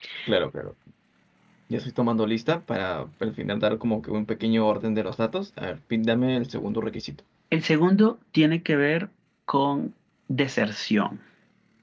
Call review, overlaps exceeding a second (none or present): none